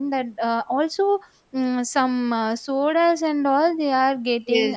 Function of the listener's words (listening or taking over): taking over